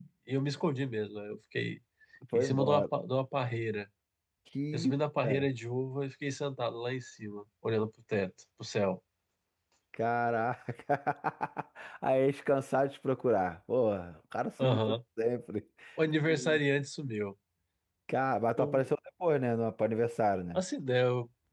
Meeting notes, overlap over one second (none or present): none